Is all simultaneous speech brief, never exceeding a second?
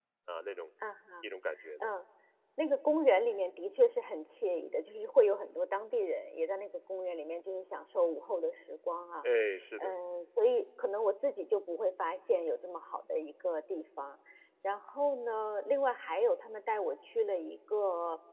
Yes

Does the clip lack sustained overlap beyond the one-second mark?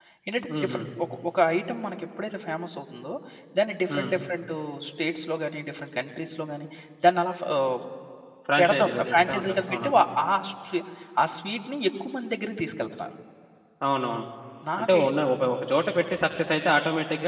No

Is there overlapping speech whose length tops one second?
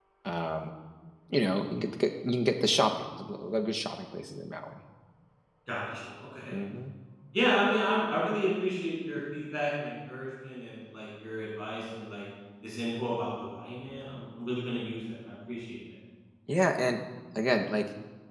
No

